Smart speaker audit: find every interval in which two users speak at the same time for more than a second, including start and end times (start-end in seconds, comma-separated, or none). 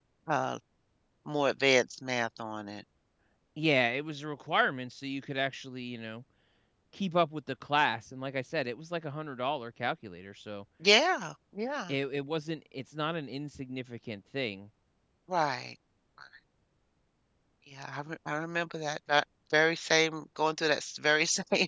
none